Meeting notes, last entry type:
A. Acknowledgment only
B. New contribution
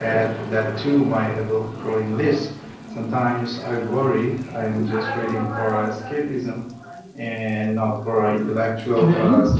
B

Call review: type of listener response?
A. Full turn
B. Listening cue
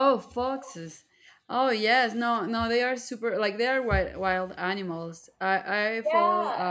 A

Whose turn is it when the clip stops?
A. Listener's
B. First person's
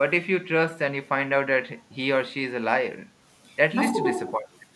A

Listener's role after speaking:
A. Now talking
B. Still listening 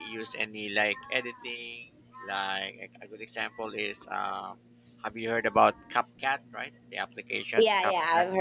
A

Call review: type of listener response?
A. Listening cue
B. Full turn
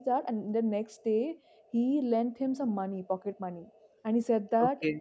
A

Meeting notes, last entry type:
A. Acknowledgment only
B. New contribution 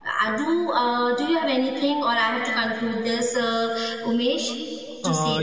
B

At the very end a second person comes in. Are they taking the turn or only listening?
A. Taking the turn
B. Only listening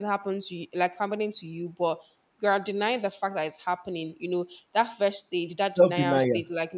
B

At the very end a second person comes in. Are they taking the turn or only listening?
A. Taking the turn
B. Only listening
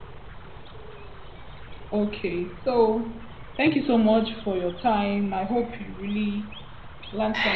A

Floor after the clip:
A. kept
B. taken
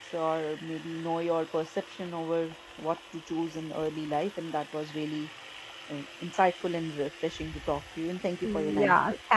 B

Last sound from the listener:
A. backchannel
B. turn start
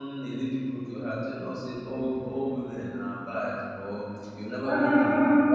A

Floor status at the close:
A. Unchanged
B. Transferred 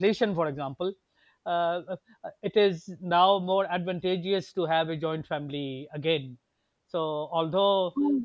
A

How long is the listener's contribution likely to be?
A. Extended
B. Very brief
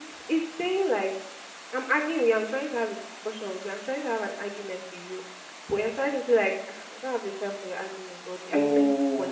A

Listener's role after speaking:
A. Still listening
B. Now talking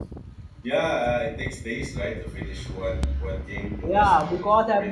B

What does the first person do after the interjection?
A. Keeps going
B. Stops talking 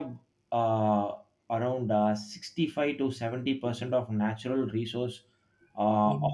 A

